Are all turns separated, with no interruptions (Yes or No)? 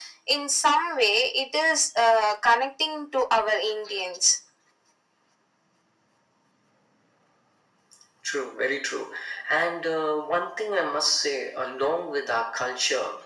Yes